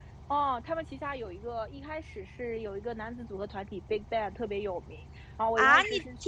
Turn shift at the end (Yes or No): Yes